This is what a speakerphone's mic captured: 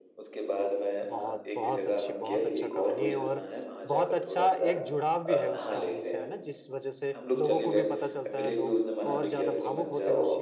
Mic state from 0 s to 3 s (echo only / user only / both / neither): both